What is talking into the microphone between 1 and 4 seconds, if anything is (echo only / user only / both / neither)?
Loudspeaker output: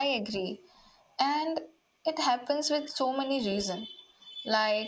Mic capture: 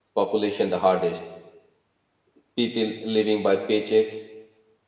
user only